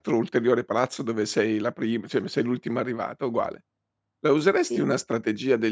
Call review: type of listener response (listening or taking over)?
listening